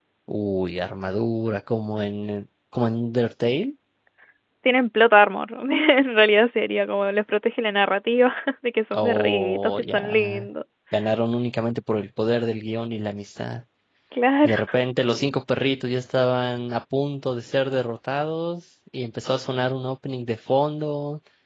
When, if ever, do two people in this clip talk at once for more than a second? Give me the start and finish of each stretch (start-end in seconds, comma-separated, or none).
8.9-10.5